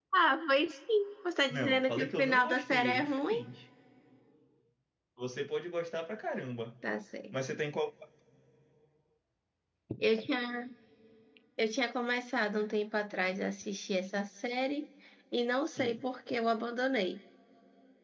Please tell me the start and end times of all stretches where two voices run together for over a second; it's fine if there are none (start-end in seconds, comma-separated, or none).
1.5-3.4